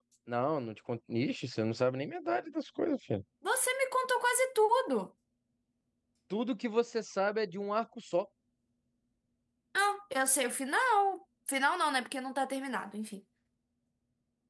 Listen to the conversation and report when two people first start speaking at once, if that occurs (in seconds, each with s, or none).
none